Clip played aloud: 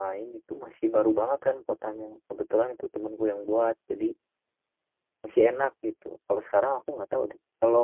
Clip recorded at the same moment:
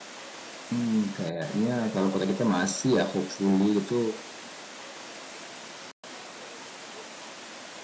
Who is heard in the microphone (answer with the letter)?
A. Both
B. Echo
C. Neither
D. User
D